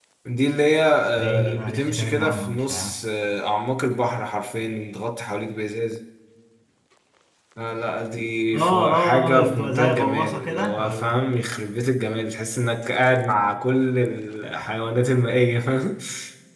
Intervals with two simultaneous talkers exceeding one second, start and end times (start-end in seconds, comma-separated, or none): 1.2-2.9, 8.5-11.1